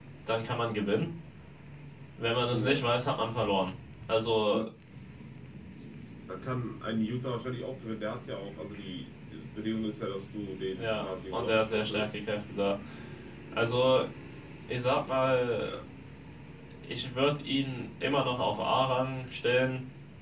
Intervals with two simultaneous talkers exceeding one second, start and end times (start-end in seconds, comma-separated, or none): 10.8-12.2